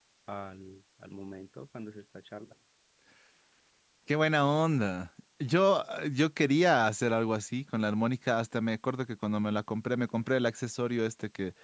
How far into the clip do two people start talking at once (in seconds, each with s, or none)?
none